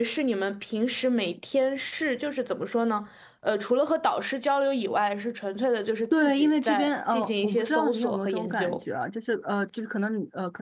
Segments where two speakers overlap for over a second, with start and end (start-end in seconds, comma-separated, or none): 6.1-8.8